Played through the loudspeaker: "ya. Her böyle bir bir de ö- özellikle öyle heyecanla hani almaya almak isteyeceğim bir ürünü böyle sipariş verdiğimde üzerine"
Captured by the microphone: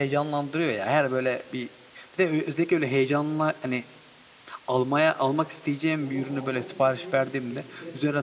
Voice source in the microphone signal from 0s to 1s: echo only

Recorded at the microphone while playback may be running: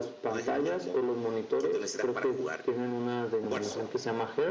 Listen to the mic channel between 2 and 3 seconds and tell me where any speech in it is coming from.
echo only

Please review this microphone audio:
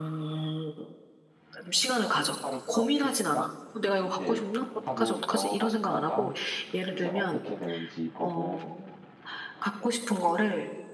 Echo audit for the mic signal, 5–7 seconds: both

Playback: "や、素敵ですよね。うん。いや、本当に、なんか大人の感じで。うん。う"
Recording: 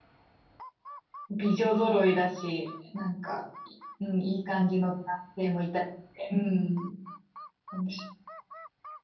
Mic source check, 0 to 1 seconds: neither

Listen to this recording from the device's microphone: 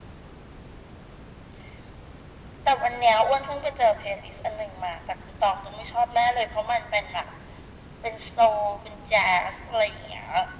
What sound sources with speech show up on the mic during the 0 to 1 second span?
neither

